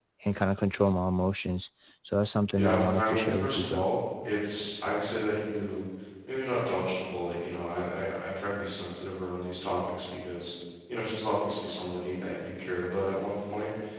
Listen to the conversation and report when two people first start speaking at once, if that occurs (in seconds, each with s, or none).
2.5 s